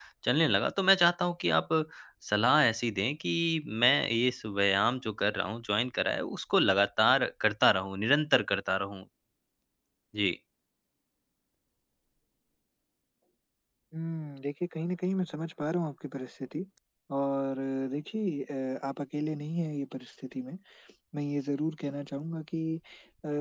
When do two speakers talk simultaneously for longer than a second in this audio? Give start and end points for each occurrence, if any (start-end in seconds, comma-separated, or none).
none